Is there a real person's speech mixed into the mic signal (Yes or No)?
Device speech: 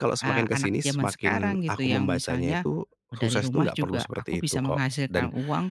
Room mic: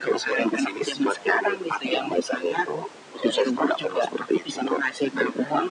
No